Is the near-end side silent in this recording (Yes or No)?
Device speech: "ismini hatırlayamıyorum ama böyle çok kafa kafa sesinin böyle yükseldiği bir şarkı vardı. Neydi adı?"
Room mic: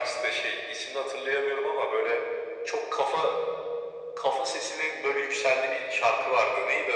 Yes